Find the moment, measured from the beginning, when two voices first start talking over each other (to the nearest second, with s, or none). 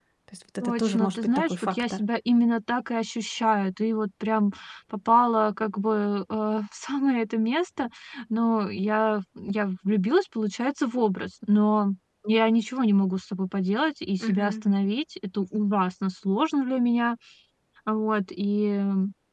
1 s